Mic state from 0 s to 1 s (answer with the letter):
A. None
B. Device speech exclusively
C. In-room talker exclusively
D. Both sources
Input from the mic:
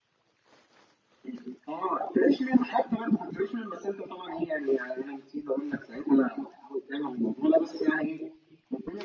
A